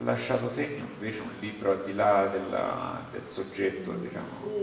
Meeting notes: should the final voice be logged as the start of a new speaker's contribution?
Yes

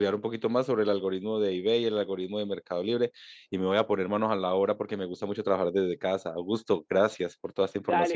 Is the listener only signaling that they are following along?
No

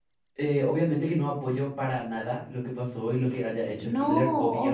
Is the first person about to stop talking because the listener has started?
Yes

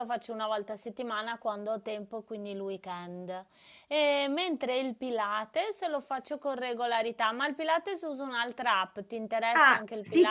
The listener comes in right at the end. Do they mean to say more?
Yes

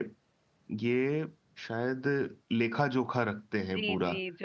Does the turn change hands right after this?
Yes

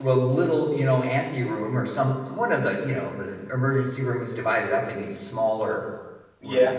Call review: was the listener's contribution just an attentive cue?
Yes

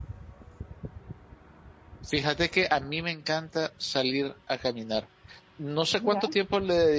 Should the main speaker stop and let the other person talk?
No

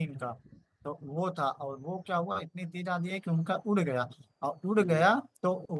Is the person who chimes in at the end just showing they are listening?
Yes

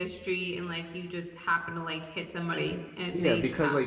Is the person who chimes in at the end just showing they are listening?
No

